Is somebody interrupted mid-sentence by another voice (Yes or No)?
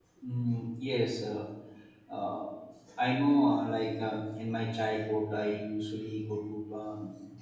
No